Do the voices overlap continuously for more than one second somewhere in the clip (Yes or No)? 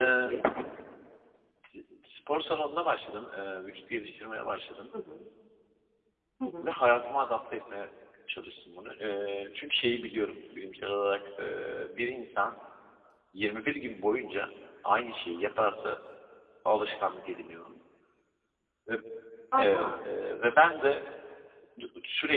No